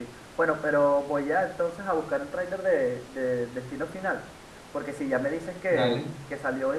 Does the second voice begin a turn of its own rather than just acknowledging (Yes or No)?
No